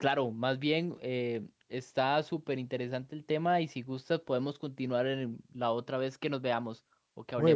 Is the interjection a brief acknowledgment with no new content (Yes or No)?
No